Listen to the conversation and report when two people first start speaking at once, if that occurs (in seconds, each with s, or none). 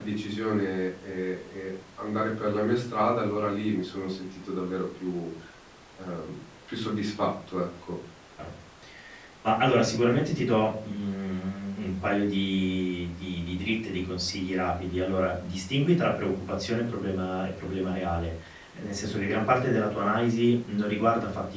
none